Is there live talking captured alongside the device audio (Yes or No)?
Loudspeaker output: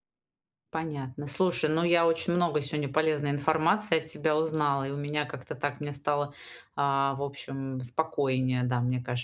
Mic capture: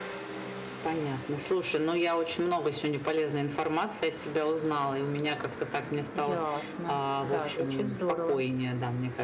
Yes